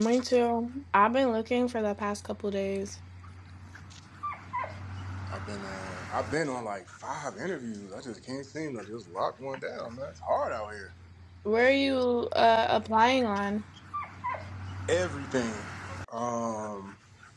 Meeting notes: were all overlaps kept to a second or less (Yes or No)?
Yes